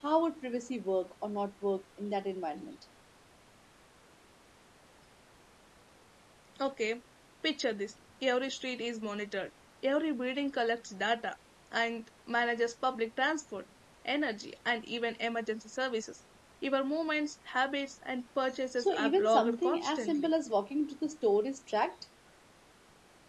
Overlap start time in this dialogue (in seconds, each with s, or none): 18.8 s